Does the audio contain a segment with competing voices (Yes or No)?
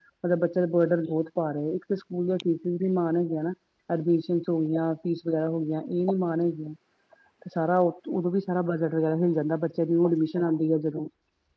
No